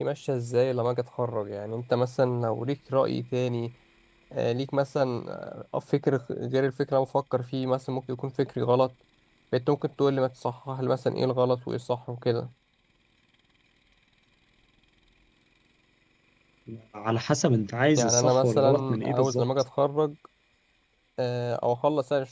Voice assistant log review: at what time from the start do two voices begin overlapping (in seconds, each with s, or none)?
18.0 s